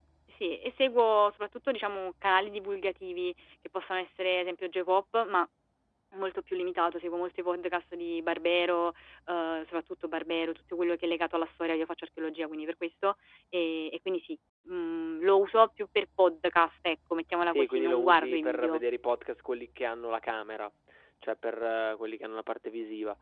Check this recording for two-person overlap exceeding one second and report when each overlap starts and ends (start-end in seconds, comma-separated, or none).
17.6-18.8